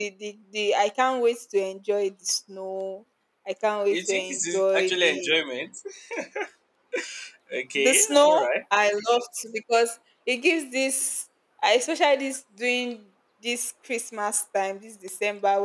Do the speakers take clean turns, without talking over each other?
No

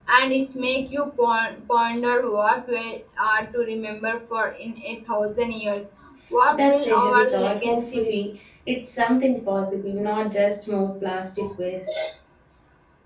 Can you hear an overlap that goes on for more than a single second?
Yes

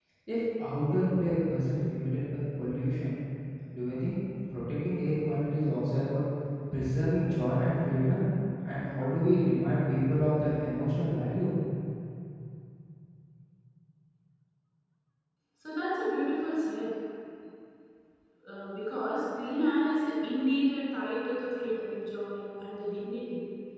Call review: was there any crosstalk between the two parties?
No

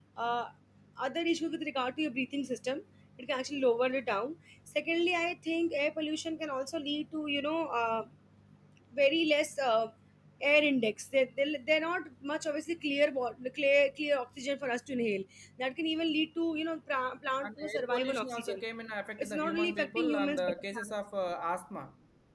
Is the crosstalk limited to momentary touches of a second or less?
No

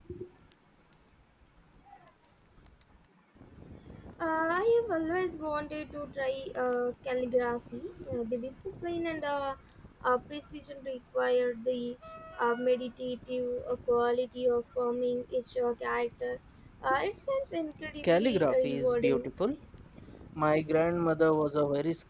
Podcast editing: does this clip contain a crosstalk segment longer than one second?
Yes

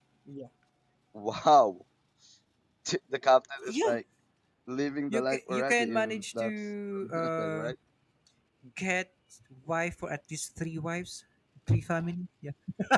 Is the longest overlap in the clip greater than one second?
Yes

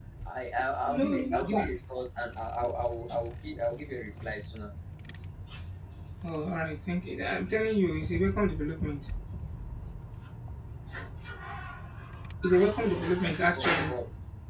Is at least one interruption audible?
Yes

